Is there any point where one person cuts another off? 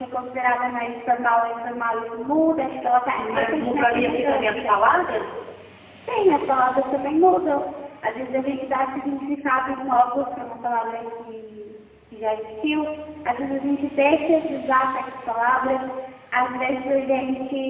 Yes, from 3.2 s

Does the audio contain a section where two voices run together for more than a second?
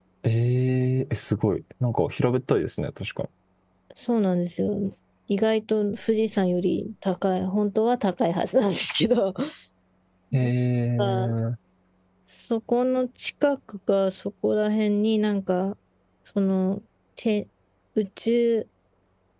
No

